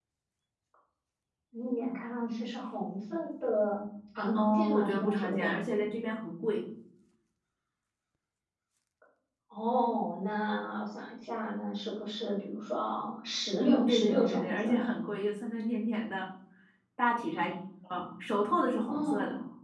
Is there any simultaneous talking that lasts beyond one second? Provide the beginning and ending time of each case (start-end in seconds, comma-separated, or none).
4.3-5.5, 13.6-14.8